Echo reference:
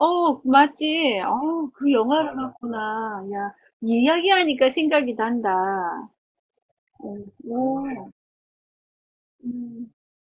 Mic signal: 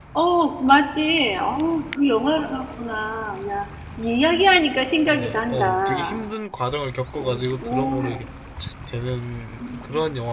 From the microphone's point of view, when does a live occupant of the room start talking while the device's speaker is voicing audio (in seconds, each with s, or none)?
5.0 s